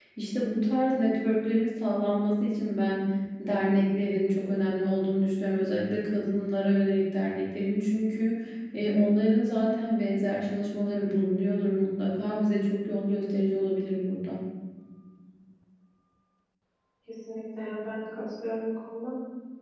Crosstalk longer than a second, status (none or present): none